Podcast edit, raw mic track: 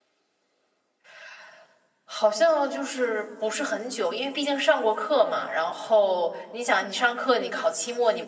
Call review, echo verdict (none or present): none